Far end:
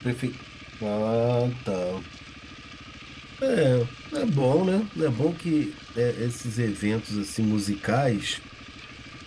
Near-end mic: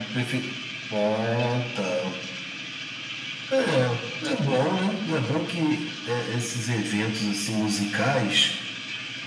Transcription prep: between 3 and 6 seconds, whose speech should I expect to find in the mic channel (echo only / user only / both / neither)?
echo only